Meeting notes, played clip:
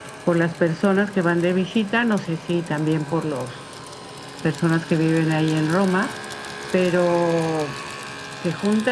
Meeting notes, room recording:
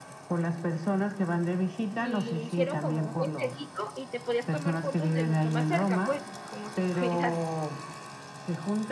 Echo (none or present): present